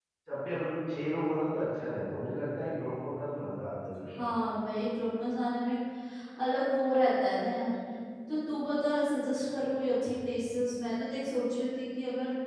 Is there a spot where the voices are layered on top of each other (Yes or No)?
No